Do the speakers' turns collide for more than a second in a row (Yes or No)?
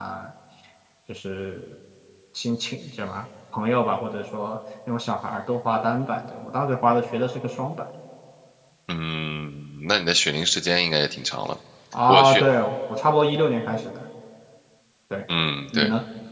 No